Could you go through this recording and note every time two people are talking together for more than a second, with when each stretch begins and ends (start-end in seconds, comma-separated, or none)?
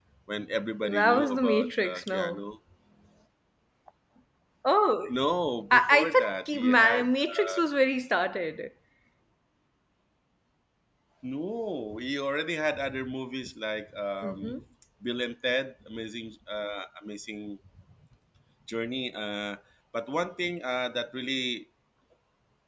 0.8-2.4, 5.7-7.6